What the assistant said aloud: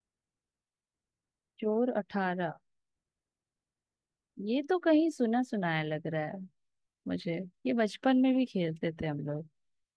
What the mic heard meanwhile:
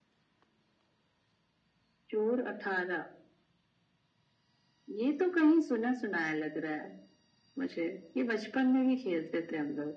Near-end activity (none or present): none